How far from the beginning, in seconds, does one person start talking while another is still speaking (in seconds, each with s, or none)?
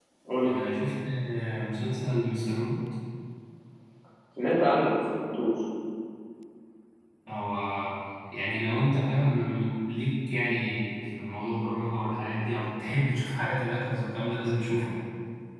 none